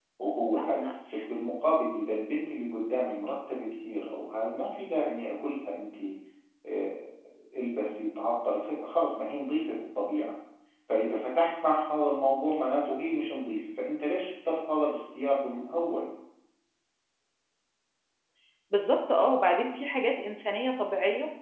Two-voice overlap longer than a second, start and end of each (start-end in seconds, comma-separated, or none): none